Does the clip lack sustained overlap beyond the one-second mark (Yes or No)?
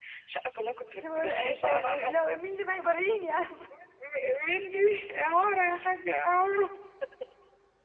No